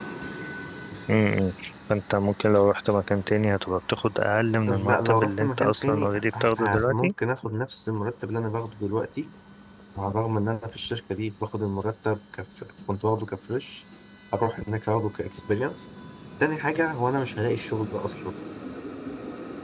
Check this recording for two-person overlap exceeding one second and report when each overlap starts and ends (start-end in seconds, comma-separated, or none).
4.7-7.1